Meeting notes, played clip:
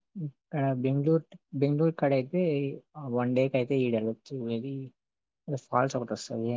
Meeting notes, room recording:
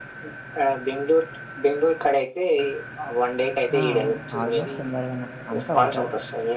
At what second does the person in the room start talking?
3.8 s

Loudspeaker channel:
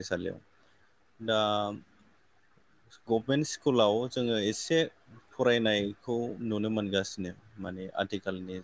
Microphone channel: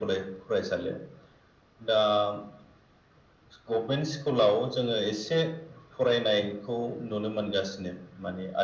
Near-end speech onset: none

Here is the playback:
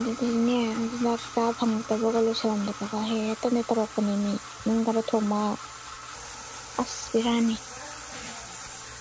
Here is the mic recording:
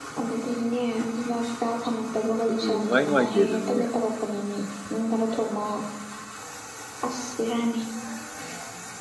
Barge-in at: 2.5 s

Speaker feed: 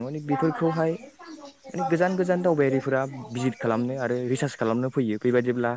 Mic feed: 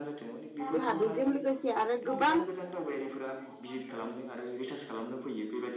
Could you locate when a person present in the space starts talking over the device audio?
0.7 s

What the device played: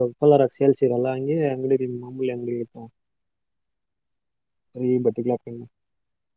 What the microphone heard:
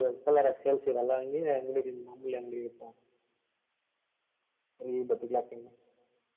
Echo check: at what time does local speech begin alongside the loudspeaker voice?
none

